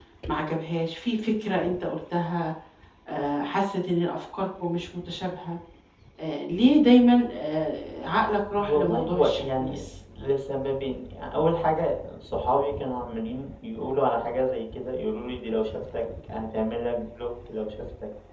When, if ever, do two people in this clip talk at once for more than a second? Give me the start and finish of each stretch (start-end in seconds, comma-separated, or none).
8.6-9.8